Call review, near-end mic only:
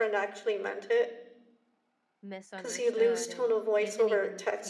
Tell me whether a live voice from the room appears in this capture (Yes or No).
Yes